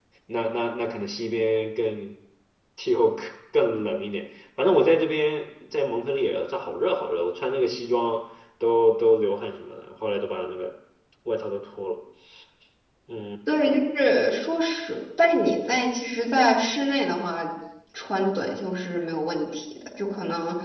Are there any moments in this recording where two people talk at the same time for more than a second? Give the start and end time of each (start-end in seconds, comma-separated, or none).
none